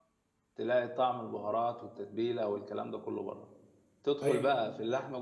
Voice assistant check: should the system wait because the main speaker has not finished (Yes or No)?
Yes